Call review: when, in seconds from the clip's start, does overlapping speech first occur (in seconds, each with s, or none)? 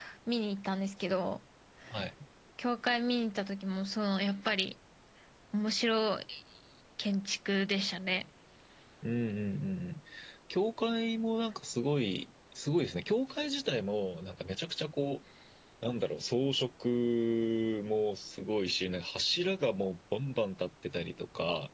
none